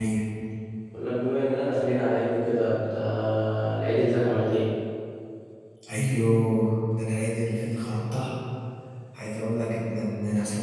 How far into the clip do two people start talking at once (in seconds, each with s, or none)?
none